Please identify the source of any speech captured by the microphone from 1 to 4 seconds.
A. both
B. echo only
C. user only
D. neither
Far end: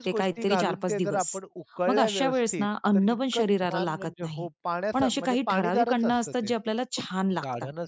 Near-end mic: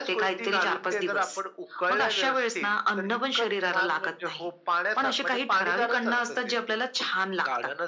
B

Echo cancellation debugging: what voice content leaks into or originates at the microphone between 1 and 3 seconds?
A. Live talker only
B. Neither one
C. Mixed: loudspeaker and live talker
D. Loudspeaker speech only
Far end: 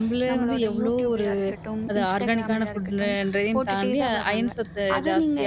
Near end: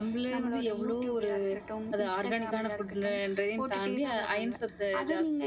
D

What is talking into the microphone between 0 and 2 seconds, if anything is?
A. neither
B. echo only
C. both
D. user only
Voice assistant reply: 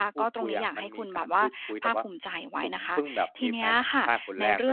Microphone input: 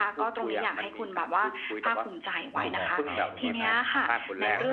B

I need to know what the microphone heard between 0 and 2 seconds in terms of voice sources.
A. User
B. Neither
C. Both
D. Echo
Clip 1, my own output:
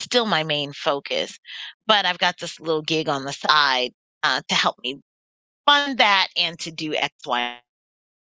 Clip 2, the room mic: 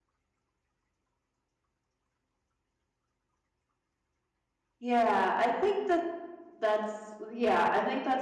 B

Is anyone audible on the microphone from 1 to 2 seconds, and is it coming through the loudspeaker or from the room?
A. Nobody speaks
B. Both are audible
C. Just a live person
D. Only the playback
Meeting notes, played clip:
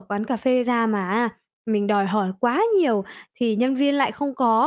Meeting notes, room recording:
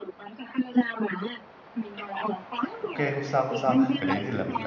D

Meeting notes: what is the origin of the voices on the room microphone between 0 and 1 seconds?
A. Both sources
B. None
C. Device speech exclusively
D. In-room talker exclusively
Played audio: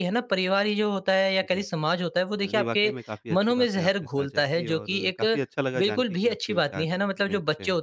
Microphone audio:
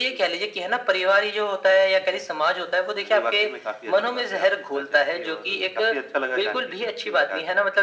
C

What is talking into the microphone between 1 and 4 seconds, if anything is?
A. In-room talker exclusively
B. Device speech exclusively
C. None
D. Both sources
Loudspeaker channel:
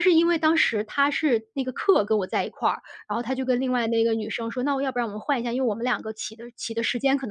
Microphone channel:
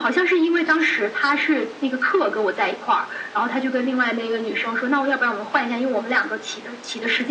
B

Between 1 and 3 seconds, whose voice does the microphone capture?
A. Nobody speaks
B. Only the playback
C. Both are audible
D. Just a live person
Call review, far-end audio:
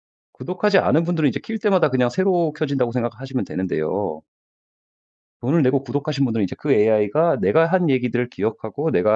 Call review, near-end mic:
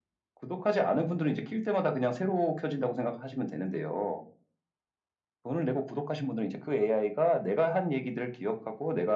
B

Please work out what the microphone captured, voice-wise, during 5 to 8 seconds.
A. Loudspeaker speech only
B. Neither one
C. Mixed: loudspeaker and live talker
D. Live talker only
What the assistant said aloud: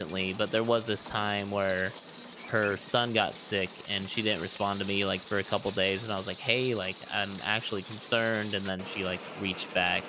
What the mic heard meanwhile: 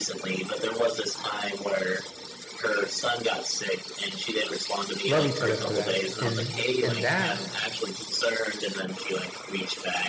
C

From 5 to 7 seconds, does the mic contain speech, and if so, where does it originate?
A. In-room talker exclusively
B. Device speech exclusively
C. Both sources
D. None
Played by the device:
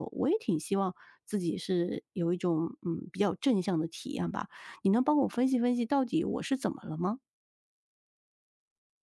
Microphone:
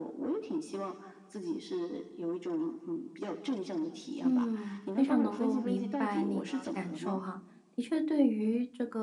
C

